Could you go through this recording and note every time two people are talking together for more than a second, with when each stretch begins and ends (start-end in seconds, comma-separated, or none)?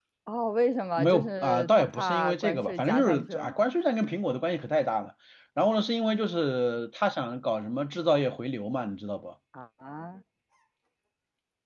1.0-3.6